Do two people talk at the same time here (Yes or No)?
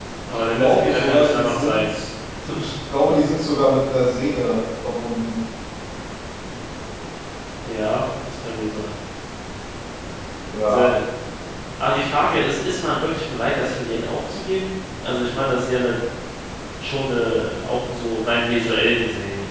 Yes